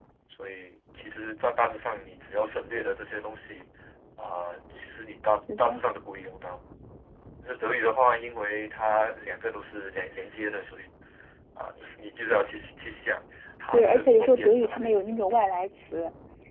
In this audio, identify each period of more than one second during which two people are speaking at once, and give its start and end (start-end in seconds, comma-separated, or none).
13.7-15.6